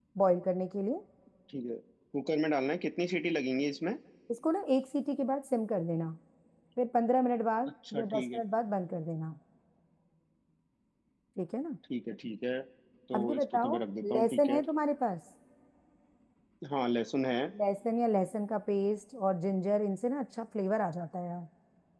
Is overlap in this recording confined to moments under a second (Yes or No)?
No